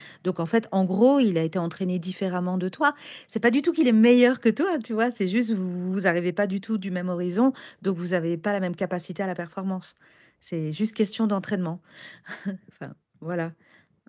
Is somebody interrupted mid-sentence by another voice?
No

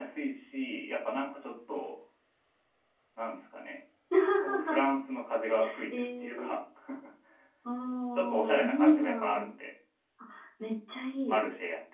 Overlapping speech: Yes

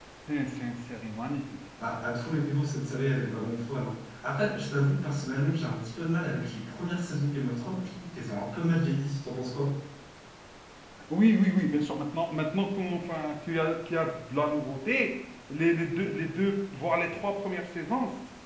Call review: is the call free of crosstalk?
Yes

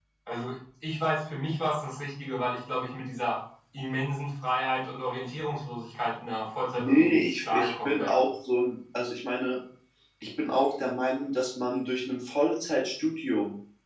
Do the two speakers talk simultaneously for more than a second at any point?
Yes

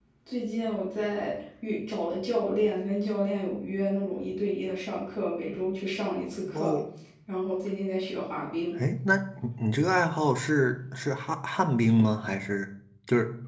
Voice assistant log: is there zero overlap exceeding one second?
Yes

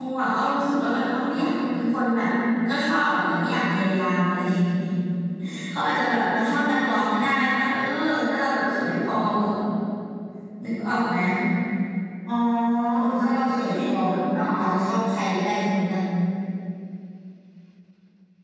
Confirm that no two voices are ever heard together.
No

